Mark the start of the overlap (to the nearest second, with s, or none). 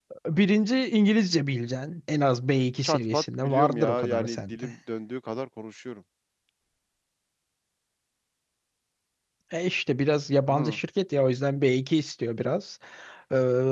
3 s